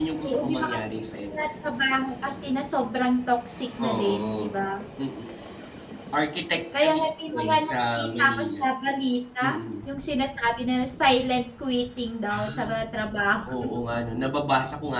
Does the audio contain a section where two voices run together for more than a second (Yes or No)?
Yes